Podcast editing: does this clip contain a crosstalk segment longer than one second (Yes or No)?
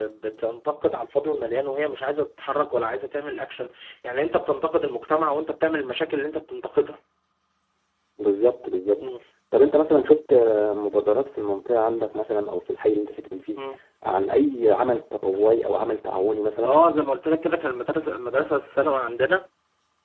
No